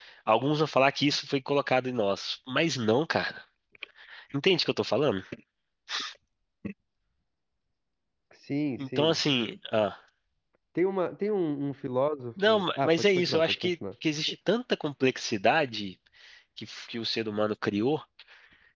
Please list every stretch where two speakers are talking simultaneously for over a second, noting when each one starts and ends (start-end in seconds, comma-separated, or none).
12.5-13.8